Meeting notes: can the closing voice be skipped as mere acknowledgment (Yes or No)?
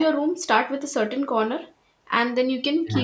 Yes